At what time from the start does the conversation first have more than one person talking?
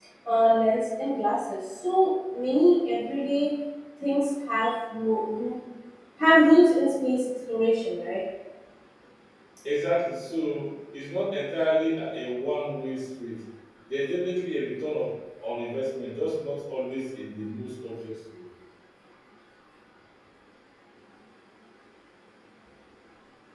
none

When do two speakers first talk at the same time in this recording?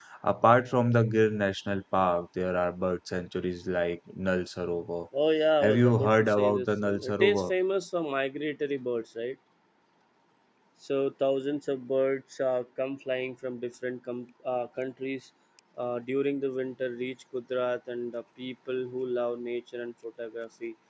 5.6 s

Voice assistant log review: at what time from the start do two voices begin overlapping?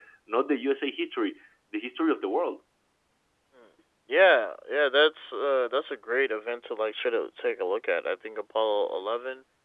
none

